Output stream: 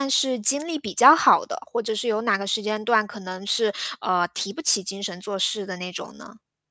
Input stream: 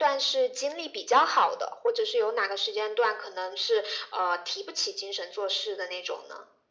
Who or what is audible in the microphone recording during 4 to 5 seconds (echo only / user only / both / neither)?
echo only